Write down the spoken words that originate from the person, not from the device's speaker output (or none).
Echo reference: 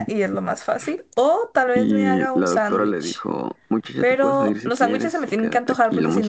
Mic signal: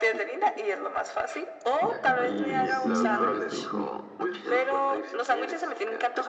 y ya compré mi medicina, me gasté dos mil pesos.